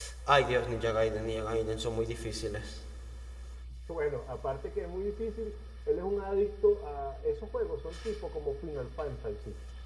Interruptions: none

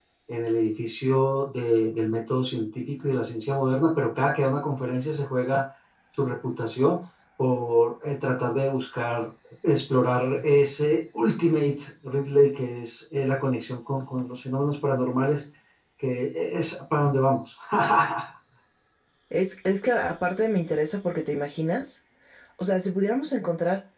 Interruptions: none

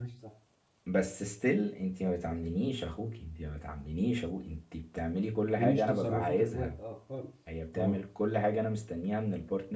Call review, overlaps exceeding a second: present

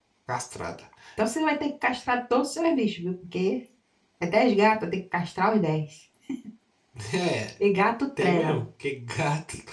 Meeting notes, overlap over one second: none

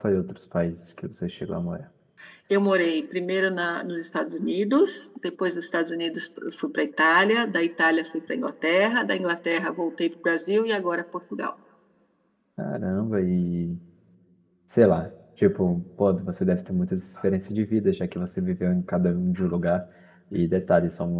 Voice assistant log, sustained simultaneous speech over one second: none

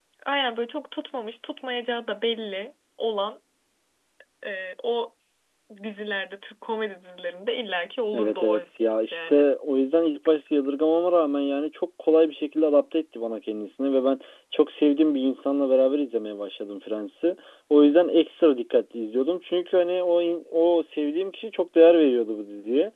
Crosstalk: present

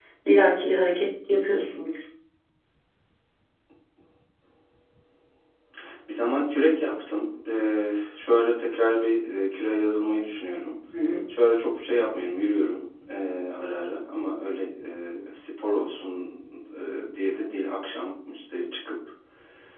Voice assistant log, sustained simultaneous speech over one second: none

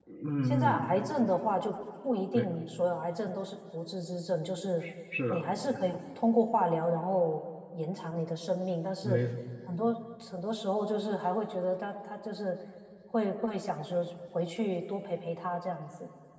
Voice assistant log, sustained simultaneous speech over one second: none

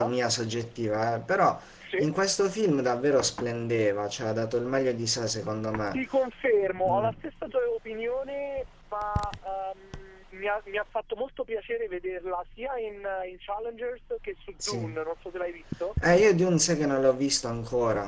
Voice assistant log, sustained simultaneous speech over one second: none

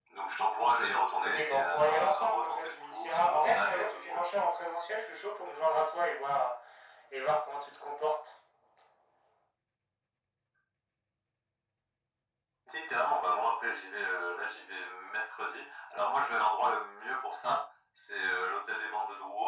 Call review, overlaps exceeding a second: present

